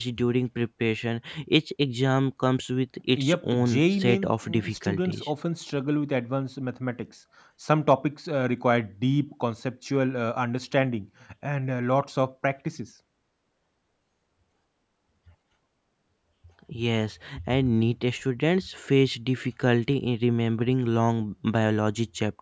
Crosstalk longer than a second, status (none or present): present